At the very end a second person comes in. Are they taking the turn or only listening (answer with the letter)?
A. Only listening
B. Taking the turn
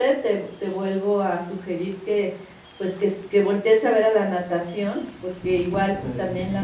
A